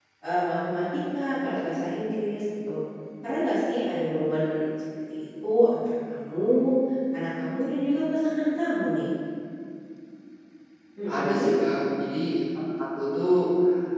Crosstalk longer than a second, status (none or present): none